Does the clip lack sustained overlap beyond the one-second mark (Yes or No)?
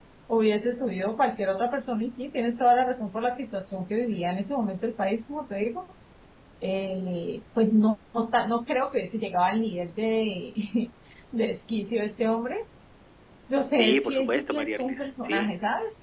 No